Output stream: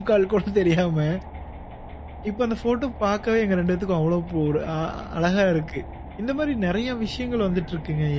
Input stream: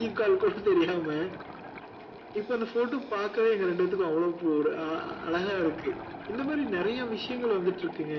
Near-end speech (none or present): none